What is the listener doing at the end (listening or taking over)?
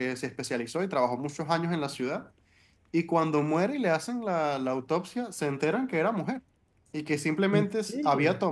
listening